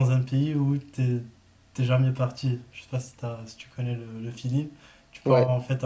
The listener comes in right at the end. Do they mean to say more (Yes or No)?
No